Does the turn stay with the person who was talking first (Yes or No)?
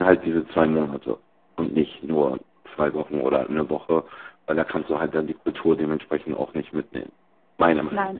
No